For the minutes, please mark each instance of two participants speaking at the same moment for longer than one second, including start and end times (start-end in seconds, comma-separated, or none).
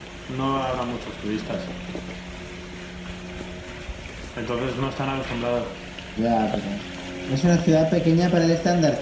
none